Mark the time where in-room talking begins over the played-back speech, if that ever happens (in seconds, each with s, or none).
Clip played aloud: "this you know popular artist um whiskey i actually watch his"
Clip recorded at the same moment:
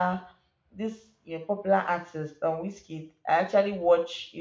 none